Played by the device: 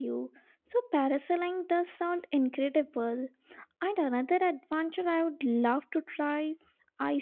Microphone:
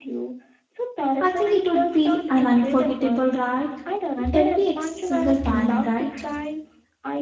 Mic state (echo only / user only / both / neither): both